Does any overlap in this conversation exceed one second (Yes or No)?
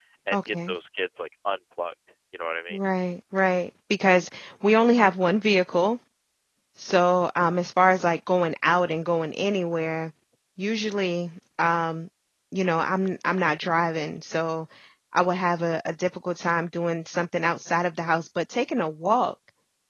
No